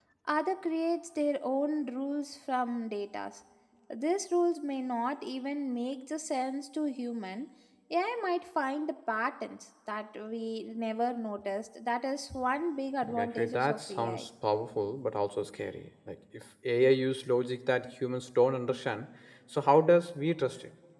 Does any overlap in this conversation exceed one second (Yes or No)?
Yes